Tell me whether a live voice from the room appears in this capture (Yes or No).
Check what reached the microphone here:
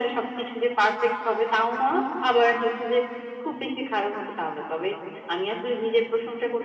No